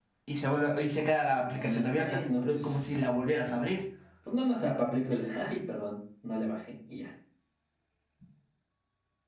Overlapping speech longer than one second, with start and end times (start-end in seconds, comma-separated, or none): 1.5-2.9